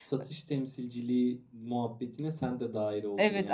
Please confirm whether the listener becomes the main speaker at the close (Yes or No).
Yes